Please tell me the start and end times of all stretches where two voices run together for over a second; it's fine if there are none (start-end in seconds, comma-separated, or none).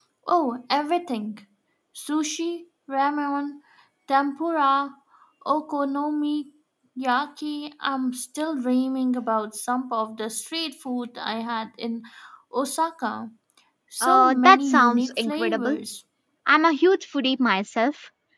14.0-15.8